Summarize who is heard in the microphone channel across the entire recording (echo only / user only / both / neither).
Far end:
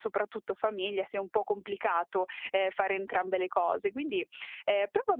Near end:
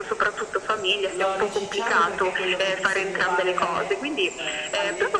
both